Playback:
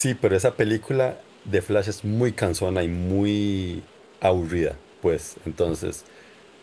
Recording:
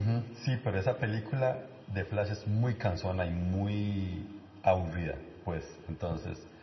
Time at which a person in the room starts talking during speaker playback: none

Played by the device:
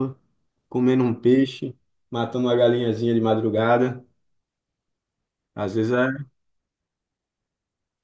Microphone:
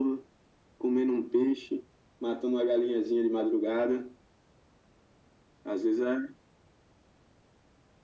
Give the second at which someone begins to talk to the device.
none

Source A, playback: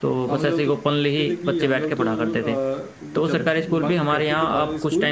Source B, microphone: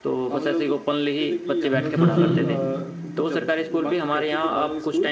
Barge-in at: 1.7 s

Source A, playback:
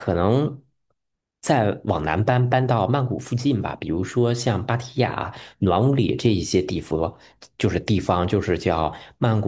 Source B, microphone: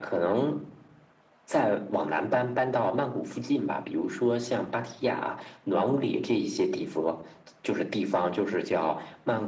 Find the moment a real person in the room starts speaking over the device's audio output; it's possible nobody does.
none

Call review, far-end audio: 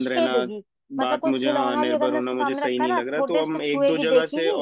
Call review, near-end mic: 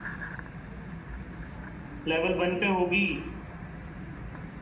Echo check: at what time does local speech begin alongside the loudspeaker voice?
2.1 s

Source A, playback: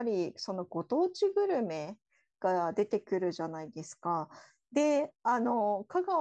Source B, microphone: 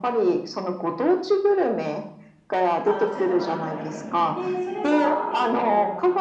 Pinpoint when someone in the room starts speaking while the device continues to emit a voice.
2.8 s

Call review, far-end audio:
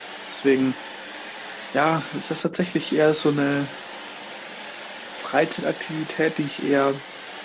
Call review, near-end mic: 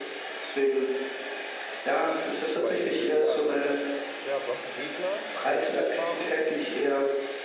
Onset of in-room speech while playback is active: 2.6 s

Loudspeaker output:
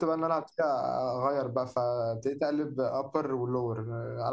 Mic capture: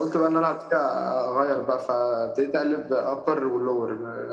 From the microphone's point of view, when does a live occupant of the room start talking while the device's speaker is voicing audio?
none

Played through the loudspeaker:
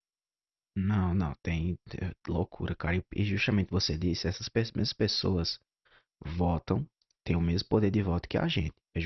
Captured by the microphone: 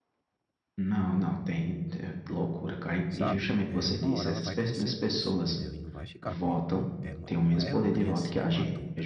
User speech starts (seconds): 3.1 s

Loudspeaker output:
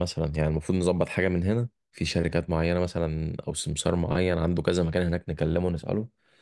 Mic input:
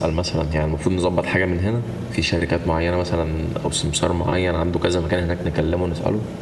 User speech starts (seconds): none

